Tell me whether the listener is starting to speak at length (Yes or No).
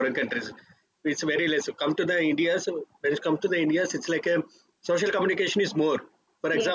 No